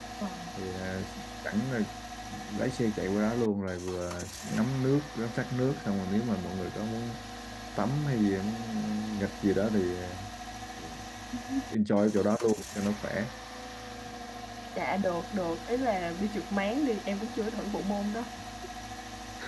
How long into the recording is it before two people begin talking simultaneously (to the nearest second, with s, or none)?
none